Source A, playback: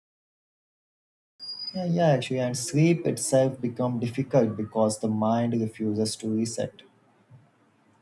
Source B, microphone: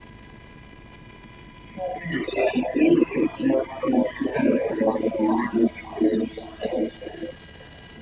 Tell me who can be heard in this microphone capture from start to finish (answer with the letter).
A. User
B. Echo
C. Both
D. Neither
B